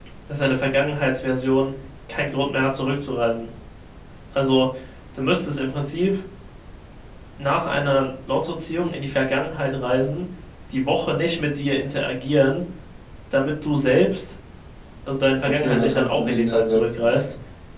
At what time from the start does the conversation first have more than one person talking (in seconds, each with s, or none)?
15.4 s